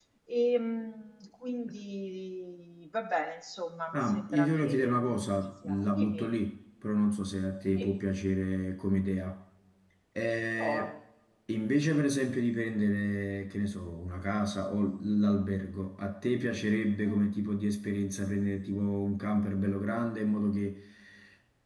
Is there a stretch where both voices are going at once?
Yes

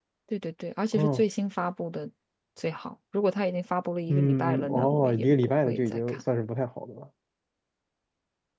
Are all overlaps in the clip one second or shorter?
No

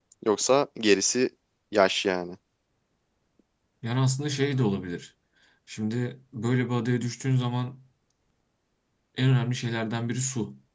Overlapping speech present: No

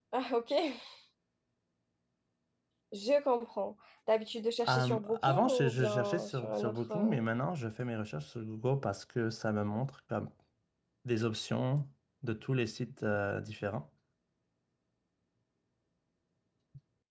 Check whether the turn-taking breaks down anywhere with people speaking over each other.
Yes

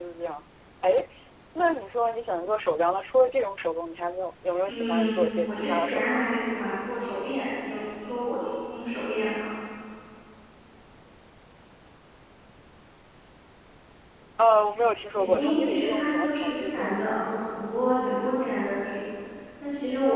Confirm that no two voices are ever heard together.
No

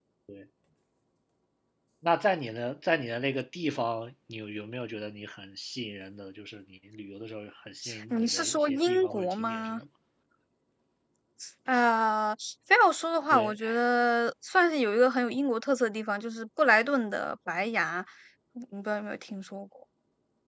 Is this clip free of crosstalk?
No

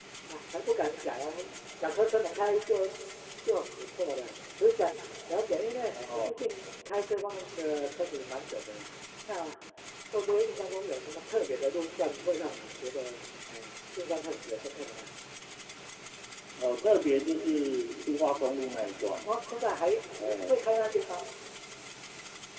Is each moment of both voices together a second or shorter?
Yes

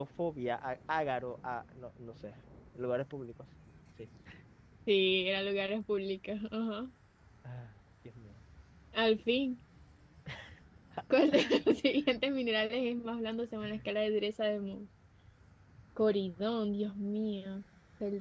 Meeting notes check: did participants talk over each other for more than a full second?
No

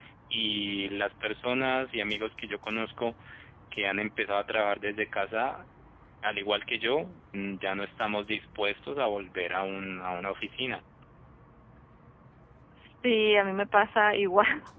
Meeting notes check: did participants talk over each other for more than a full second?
No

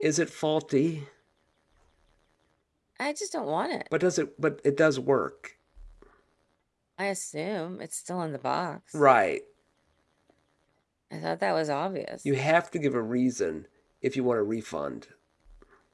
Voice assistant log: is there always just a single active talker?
Yes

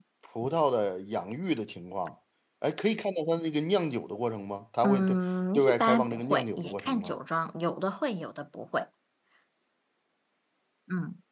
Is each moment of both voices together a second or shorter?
No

